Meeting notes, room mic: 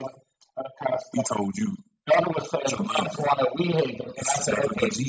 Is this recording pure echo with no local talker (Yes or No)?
Yes